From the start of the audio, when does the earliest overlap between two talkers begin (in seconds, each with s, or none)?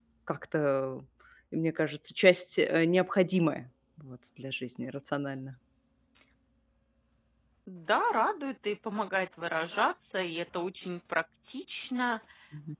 none